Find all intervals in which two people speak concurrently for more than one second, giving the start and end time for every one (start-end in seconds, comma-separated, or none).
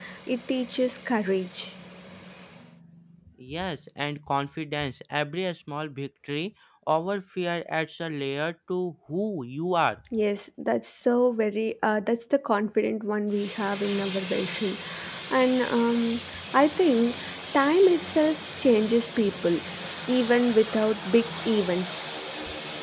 none